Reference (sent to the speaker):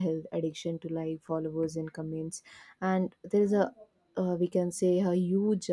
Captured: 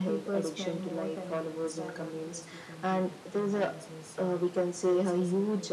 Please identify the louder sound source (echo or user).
echo